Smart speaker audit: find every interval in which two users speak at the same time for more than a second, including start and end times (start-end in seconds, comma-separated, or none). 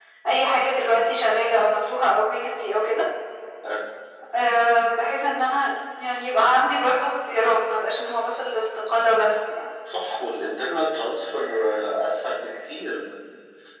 none